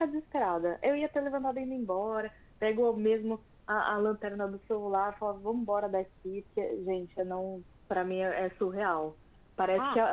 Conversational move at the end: listening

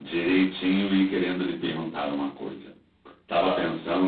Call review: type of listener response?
listening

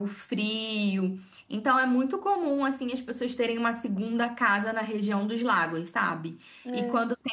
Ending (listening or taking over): listening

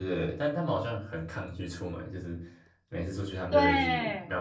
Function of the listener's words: listening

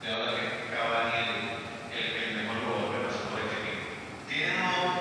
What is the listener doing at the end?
listening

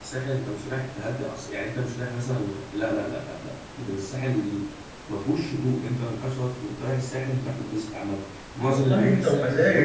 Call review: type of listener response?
taking over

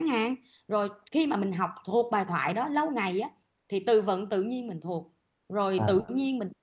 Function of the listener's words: listening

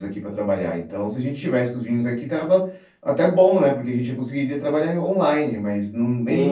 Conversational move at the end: taking over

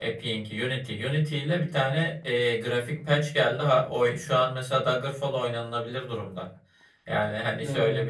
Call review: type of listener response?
listening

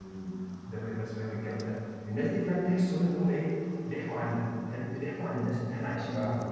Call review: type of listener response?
taking over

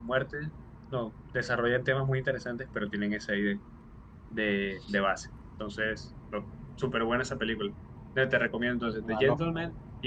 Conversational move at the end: listening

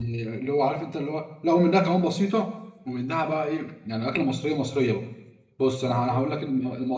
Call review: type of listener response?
listening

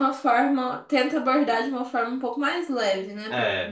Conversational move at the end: taking over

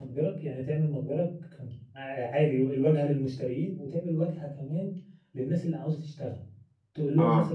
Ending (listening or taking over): listening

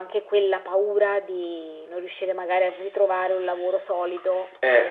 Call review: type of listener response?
taking over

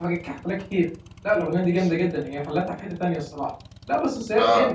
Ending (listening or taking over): listening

